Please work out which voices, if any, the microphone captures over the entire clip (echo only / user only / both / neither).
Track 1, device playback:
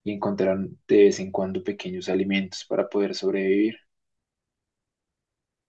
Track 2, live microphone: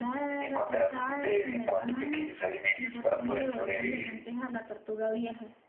both